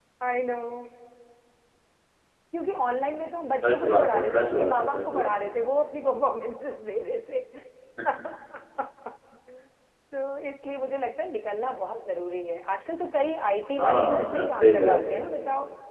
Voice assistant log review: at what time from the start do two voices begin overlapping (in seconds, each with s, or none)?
3.7 s